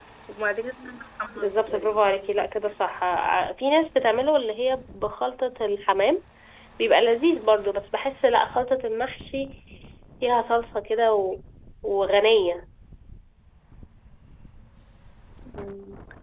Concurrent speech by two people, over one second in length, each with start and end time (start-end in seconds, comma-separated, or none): 1.3-2.7